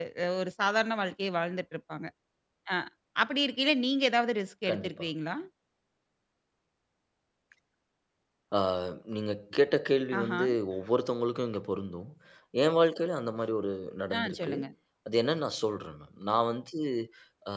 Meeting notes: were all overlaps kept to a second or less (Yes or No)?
Yes